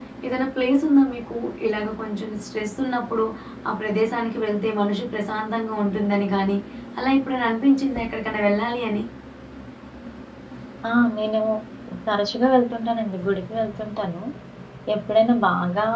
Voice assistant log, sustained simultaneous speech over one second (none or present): none